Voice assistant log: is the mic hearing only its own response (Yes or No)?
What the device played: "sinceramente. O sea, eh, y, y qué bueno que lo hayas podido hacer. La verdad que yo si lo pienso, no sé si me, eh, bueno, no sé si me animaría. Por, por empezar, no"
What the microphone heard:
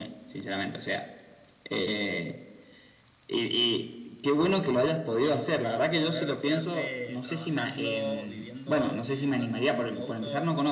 No